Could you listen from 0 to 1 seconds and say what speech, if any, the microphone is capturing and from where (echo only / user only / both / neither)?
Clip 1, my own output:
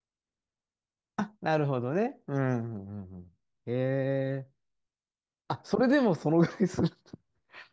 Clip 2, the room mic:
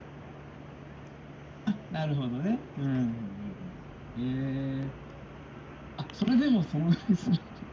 neither